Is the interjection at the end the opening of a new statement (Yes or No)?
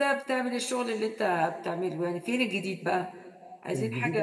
Yes